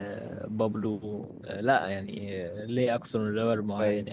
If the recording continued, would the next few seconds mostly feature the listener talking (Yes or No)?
Yes